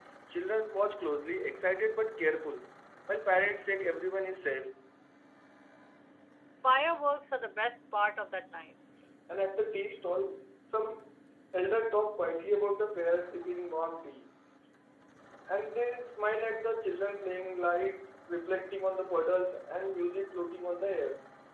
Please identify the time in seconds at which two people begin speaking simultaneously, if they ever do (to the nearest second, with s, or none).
none